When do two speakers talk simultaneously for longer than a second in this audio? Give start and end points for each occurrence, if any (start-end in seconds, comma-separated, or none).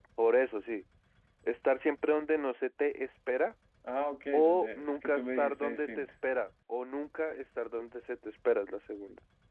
4.3-6.1